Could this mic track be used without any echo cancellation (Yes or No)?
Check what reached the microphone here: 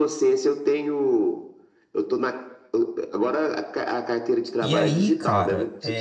No